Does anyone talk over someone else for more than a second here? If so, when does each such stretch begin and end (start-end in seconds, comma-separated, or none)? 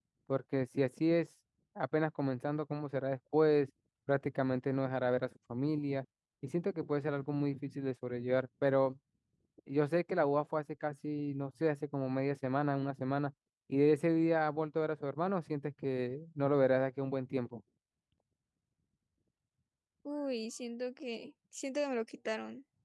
none